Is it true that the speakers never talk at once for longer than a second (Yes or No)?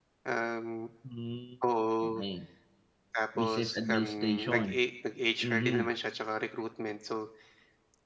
No